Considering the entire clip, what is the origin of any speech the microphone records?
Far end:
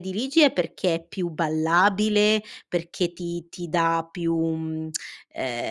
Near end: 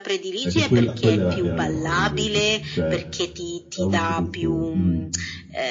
both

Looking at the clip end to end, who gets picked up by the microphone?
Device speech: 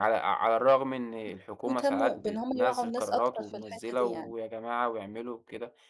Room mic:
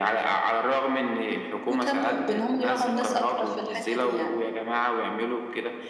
both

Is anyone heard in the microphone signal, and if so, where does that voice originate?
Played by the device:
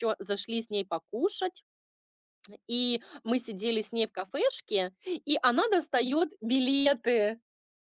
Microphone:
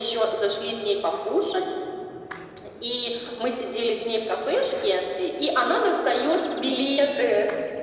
echo only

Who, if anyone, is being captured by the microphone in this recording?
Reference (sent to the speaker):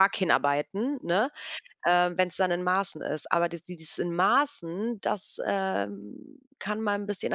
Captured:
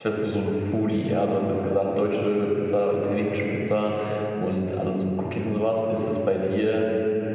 user only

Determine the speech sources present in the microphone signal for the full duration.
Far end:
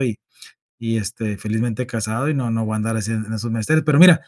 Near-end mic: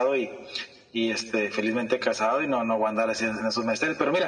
echo only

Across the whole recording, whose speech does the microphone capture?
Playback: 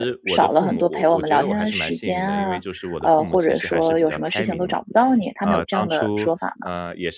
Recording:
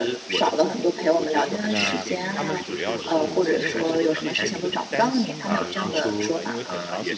both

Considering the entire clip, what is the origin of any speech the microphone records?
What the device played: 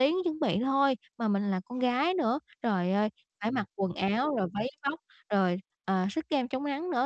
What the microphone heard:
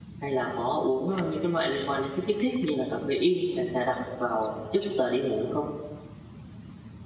user only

